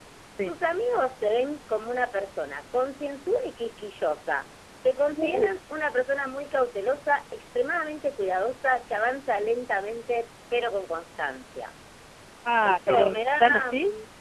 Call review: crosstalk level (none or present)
present